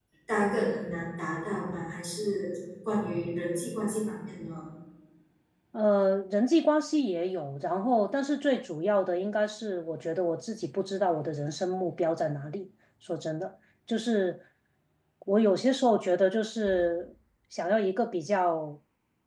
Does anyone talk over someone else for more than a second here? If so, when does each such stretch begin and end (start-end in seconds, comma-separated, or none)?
none